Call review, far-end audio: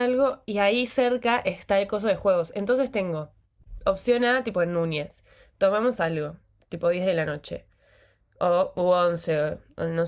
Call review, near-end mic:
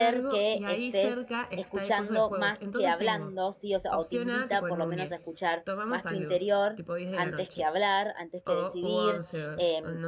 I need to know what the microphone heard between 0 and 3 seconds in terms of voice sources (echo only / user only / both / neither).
both